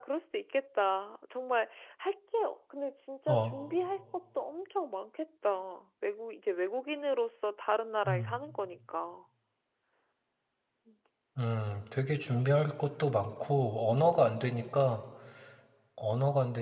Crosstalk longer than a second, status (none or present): none